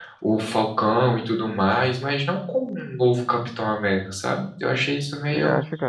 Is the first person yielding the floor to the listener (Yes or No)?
Yes